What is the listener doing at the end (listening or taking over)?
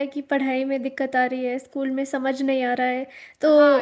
taking over